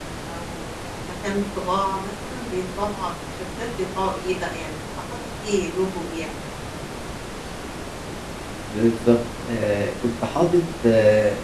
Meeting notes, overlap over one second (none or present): none